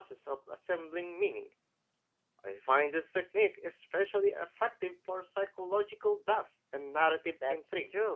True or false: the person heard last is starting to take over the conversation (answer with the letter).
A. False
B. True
B